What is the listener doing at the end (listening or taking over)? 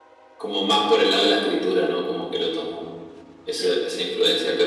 listening